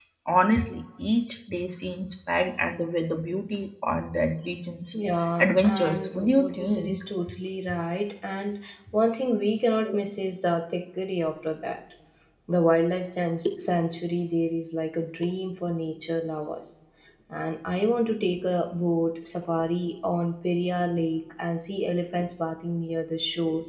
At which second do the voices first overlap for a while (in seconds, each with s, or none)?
5.4 s